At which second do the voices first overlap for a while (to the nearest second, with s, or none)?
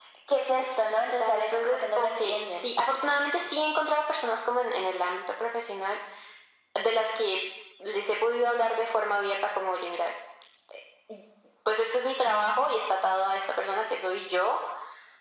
1 s